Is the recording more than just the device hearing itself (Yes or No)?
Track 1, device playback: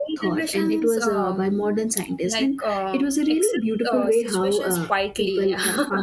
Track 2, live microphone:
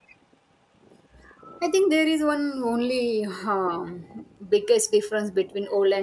Yes